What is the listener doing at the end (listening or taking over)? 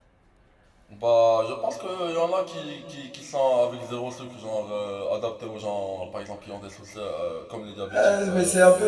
taking over